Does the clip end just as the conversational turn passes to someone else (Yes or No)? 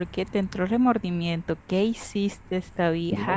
Yes